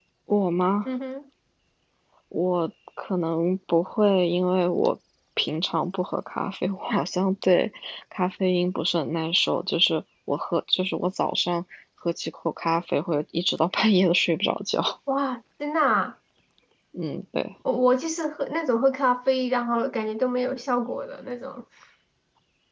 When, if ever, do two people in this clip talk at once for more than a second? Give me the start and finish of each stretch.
none

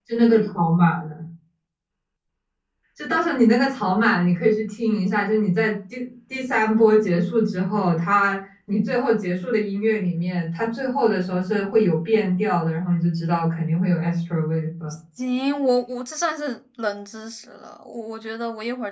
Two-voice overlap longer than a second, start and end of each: none

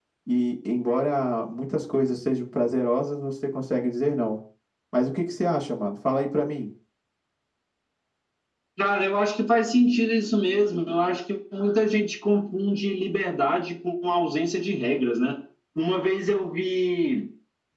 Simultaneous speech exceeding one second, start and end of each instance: none

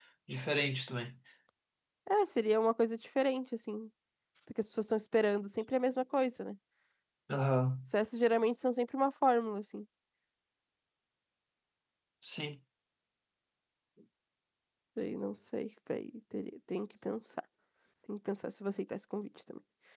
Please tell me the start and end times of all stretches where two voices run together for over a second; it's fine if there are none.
none

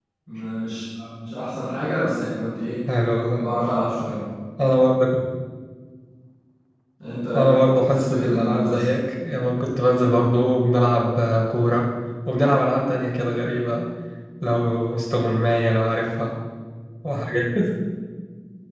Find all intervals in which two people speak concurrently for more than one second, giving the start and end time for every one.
7.3-8.8

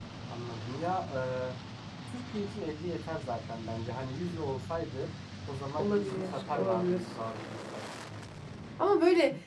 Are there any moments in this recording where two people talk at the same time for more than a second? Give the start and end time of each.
5.8-7.1

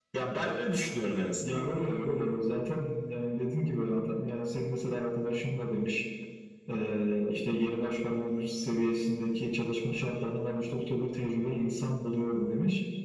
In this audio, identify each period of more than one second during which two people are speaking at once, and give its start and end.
none

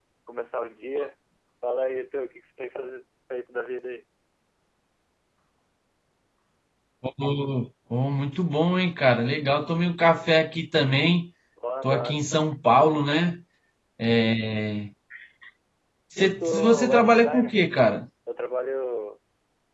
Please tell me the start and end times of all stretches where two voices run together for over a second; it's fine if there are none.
16.2-17.6

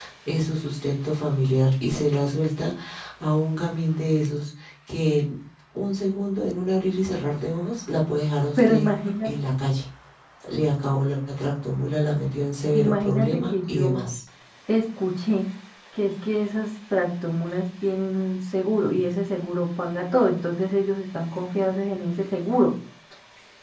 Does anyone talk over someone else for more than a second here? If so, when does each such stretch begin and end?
12.7-14.0

